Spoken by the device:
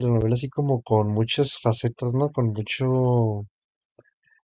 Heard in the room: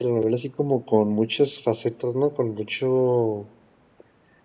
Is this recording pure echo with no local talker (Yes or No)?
Yes